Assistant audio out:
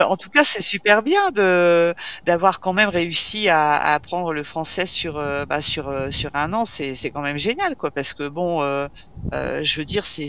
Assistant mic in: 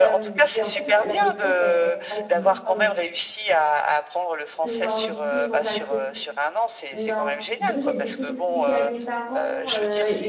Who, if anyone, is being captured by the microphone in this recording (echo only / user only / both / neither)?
both